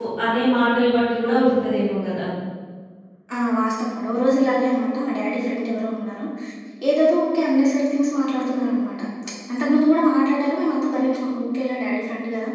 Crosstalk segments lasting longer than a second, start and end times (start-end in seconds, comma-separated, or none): none